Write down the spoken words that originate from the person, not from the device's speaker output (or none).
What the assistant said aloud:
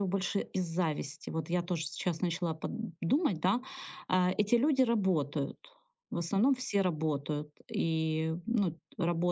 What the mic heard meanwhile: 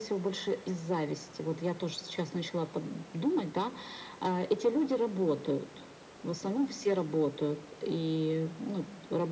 none